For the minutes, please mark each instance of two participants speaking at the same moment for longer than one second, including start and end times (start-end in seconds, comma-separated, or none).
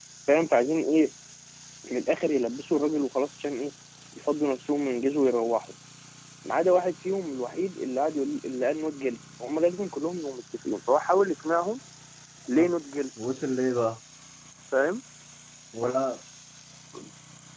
none